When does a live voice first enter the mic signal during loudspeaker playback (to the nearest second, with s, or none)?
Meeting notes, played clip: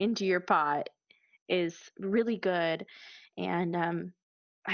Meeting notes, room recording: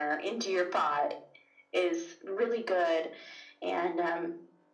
none